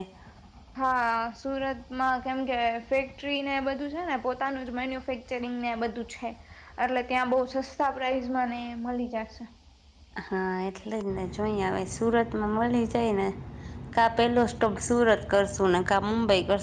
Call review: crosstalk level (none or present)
none